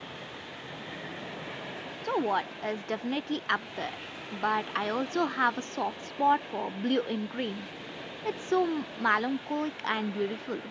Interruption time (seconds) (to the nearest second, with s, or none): none